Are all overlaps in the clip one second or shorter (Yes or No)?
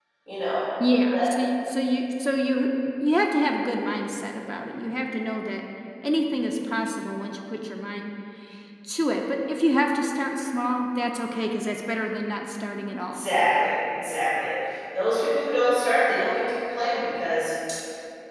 Yes